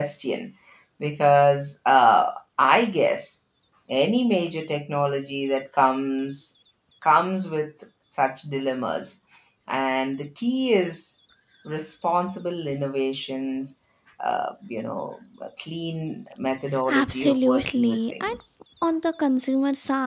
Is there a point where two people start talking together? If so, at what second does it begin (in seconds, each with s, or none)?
16.9 s